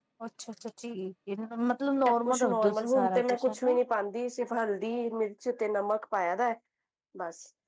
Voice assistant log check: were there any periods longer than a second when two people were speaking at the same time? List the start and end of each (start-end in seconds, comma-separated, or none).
2.1-3.6